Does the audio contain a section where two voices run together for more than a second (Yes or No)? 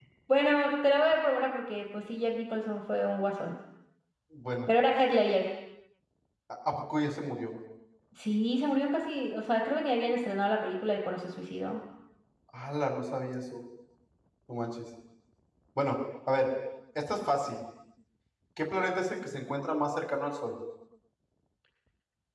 No